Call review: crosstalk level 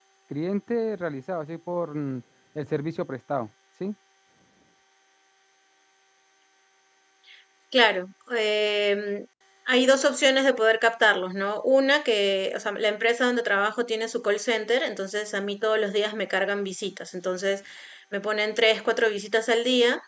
none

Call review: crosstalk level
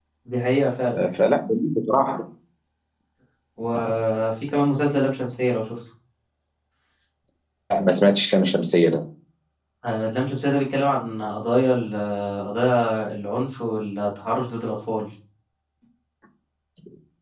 none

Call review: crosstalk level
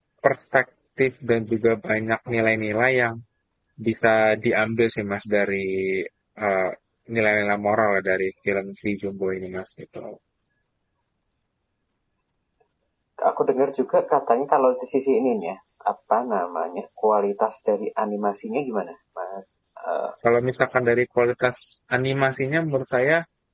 none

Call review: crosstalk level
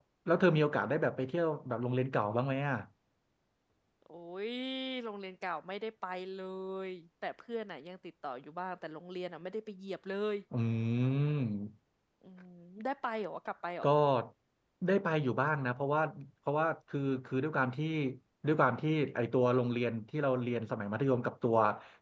none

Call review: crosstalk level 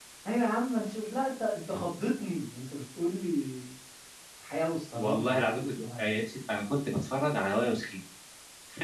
present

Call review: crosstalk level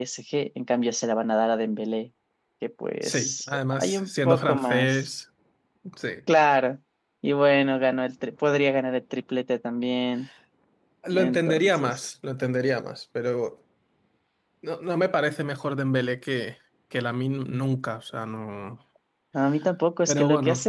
present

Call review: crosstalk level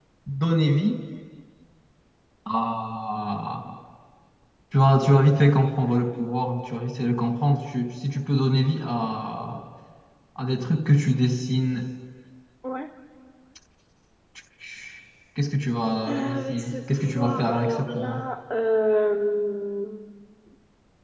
present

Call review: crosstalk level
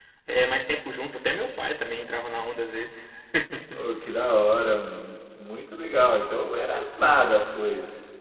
none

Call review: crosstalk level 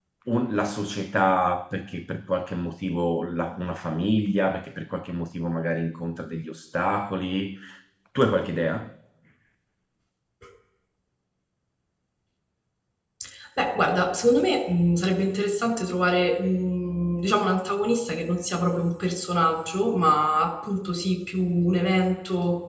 none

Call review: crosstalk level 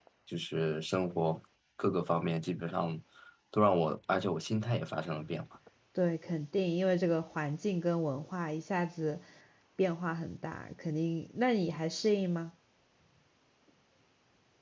none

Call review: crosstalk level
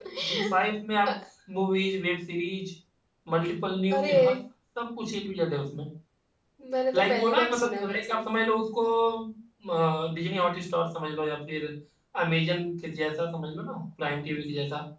present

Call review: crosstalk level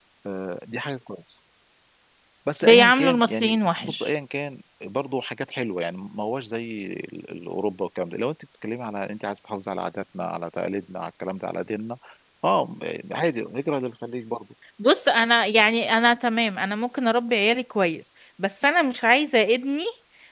present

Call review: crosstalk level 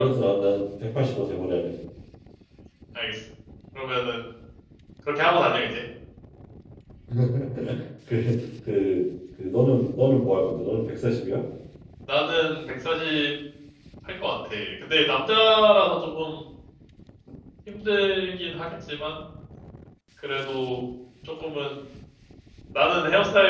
none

